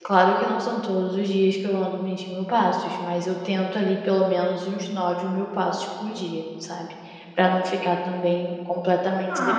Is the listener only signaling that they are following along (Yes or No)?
No